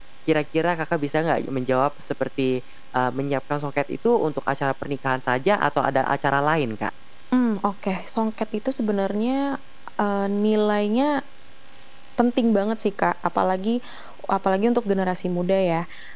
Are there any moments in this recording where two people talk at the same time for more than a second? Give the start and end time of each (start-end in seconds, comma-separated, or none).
none